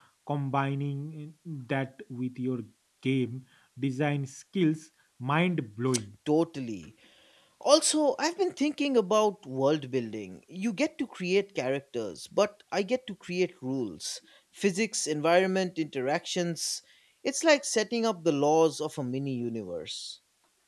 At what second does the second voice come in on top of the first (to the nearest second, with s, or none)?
none